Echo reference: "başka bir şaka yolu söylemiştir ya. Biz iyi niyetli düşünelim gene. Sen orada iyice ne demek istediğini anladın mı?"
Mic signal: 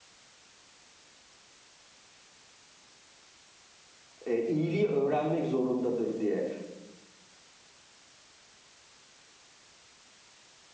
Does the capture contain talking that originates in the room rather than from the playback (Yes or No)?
Yes